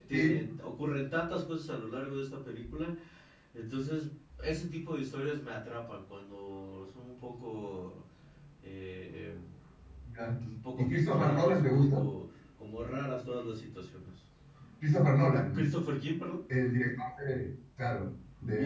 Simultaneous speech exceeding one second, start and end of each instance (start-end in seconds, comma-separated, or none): 10.8-12.0